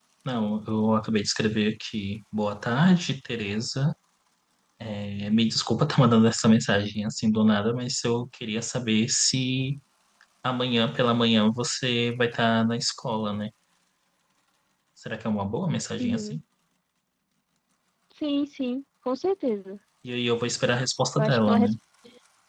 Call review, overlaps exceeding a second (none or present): none